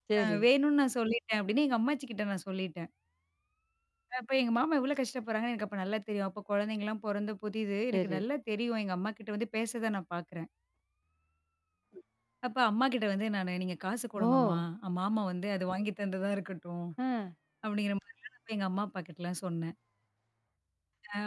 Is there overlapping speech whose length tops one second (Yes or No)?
No